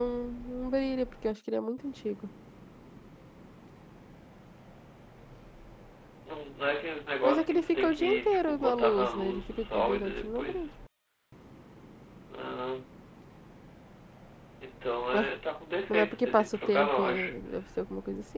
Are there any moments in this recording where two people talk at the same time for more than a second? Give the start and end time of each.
7.2-10.7, 15.9-17.3

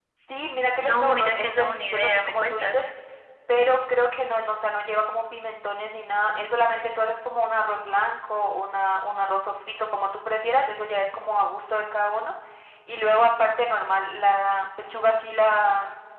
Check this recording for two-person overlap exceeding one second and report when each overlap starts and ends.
0.8-2.8

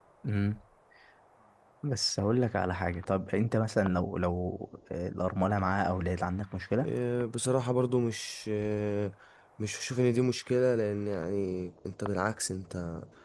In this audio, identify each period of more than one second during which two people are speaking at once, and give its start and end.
none

